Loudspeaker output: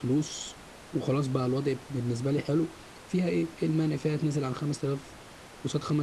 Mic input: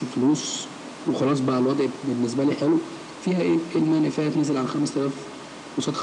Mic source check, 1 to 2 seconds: echo only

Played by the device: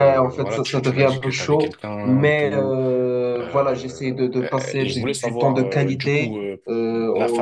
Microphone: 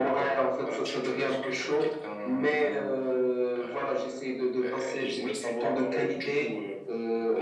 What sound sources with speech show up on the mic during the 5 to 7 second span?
echo only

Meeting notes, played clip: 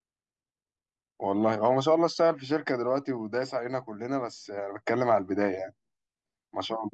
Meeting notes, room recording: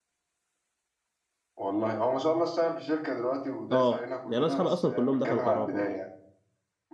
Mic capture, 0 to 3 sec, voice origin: echo only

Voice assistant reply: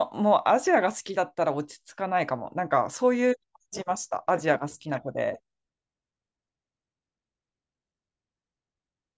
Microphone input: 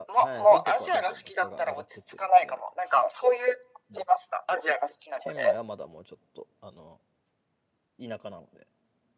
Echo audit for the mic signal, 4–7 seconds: both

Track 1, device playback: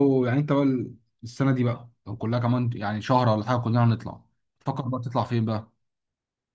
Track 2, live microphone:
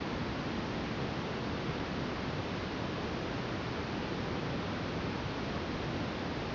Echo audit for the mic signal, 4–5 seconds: neither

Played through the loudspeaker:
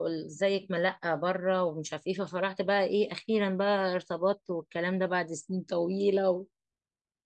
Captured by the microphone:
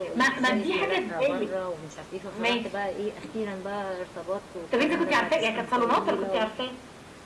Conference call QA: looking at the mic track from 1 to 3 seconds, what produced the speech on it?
both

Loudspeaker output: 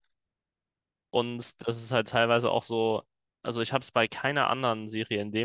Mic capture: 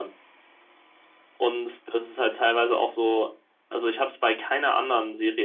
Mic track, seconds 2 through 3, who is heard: echo only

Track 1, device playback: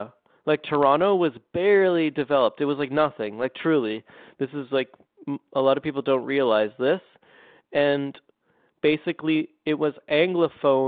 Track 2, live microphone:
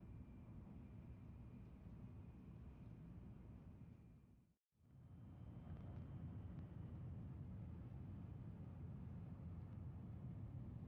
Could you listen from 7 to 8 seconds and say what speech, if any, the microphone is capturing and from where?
neither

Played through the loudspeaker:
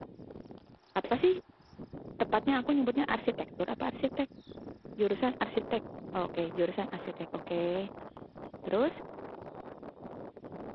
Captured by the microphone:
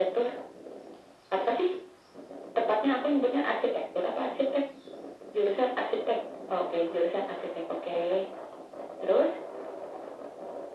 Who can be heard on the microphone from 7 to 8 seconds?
echo only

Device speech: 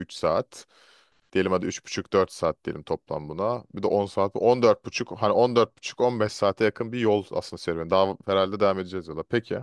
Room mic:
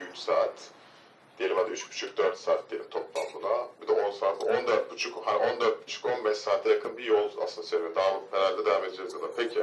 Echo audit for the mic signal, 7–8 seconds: echo only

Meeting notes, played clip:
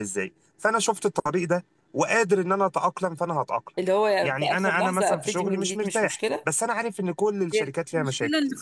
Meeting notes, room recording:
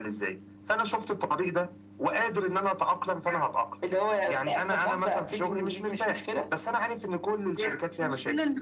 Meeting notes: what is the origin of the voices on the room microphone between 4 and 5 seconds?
echo only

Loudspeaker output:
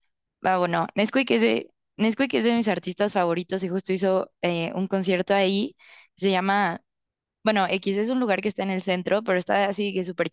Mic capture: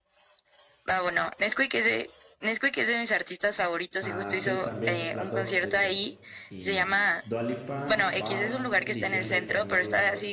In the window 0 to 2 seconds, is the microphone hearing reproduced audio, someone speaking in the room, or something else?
echo only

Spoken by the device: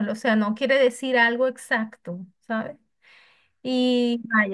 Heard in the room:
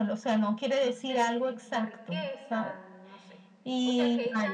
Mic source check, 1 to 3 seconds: both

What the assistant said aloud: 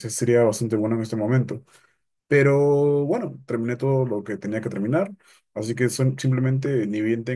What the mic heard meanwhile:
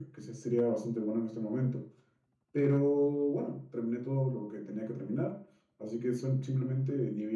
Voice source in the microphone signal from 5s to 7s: echo only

